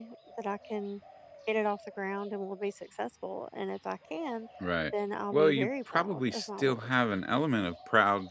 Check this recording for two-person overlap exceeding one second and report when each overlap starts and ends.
5.3-6.9

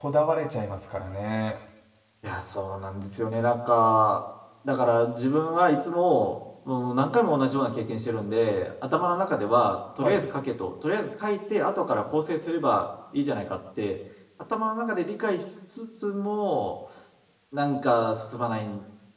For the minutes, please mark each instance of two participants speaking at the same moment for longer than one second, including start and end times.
none

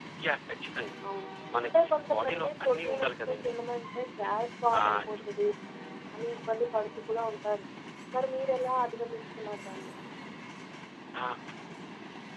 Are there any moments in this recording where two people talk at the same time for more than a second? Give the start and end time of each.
1.6-3.5

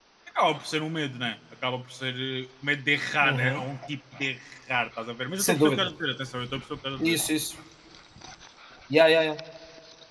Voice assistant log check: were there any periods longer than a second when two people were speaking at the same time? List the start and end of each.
none

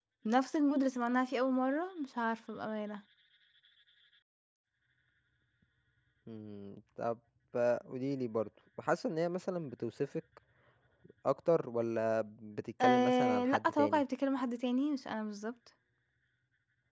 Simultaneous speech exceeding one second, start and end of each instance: 12.8-14.0

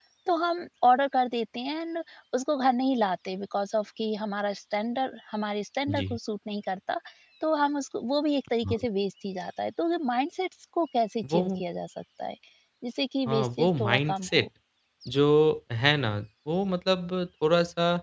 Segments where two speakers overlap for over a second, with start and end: 13.3-14.5

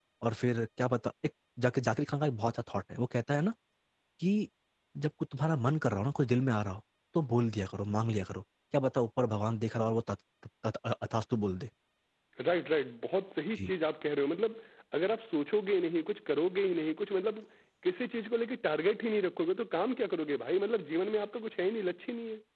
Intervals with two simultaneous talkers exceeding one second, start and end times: none

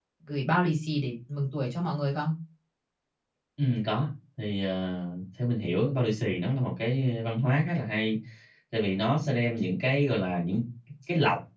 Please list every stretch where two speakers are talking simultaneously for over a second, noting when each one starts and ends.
none

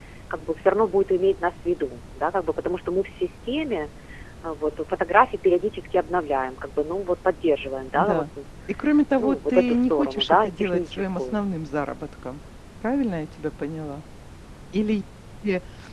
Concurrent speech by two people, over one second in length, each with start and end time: 9.2-11.4

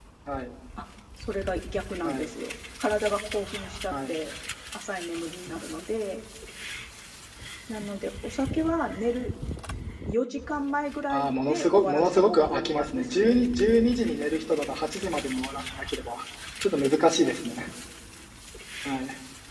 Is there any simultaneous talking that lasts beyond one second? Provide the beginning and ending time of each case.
11.1-13.3

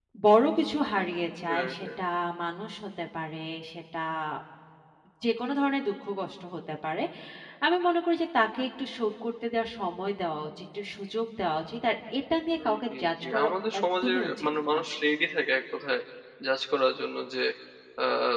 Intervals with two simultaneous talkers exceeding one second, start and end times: 12.6-14.8

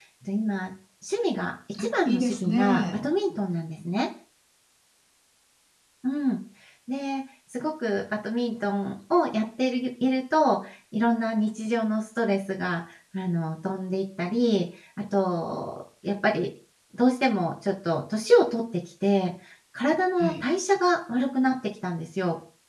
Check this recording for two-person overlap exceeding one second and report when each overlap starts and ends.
1.8-3.0

